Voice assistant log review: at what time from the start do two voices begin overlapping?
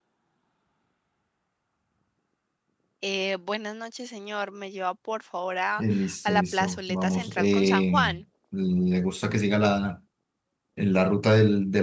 6.3 s

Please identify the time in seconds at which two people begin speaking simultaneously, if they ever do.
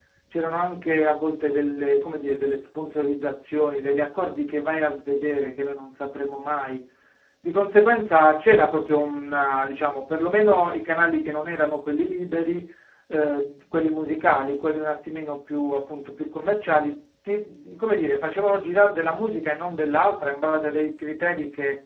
none

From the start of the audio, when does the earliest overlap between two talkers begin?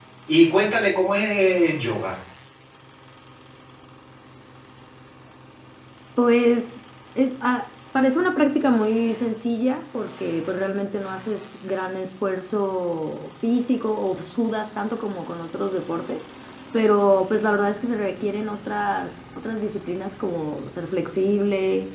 none

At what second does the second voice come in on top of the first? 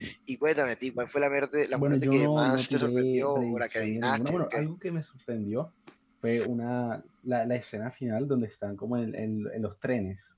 1.7 s

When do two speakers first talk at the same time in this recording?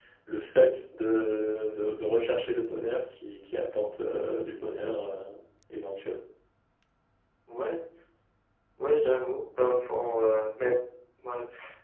none

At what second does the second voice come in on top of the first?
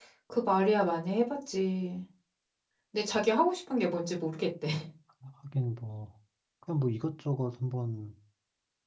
none

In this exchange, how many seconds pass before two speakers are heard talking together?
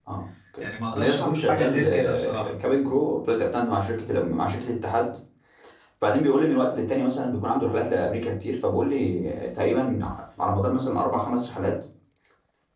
0.9 s

